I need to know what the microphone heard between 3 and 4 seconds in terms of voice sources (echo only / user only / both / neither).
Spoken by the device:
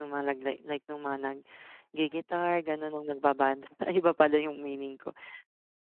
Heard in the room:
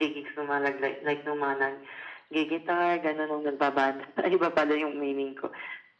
echo only